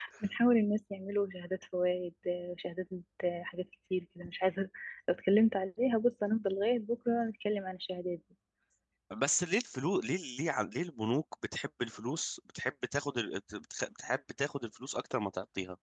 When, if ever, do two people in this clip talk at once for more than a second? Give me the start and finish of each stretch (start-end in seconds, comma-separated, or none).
none